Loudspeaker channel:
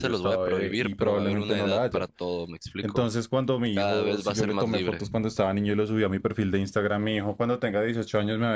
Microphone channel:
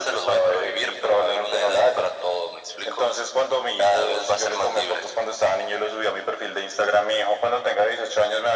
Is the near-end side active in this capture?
No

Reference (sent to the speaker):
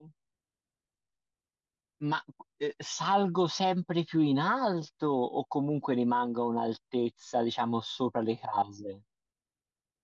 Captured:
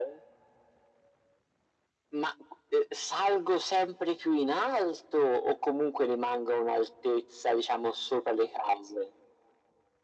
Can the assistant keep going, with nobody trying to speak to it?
Yes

